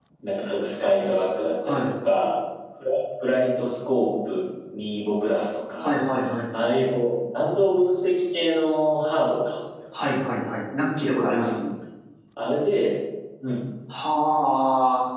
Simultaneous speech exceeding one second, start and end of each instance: none

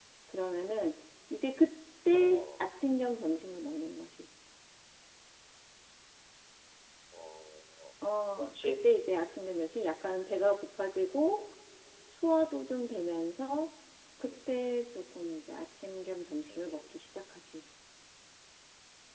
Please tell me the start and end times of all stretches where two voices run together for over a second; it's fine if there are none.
none

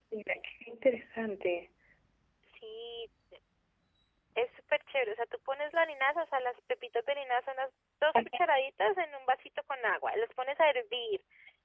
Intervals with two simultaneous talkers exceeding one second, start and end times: none

